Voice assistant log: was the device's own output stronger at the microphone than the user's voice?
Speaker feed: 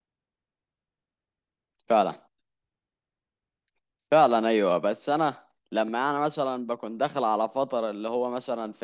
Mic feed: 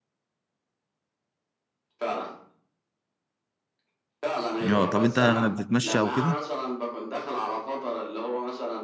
No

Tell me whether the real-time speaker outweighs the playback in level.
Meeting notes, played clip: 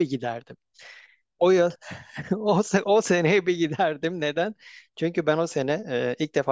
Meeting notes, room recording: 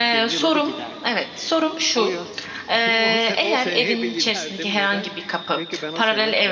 Yes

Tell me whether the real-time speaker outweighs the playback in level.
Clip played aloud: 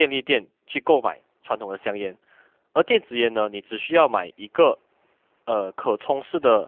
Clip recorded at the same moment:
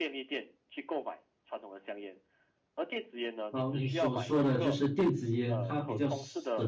Yes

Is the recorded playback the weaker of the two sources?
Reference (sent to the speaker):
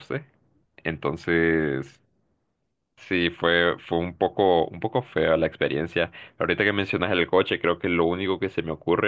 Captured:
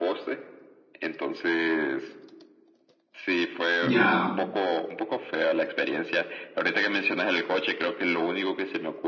Yes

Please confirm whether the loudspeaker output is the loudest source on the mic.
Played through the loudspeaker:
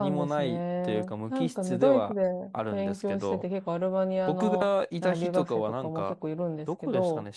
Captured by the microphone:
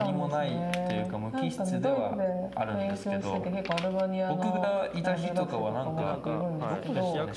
Yes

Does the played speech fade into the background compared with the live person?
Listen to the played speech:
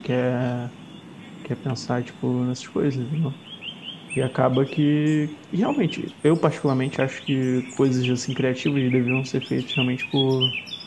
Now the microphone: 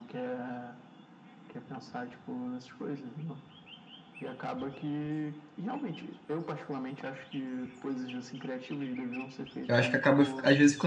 Yes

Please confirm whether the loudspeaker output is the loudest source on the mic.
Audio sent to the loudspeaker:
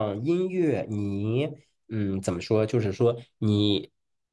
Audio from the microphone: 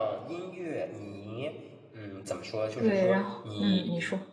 No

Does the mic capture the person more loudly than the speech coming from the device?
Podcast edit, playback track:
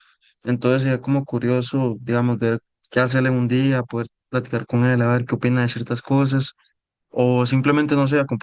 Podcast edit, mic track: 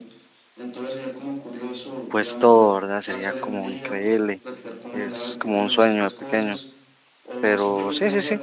Yes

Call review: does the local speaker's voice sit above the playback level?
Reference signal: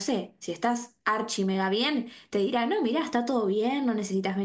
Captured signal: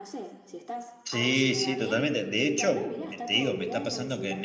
Yes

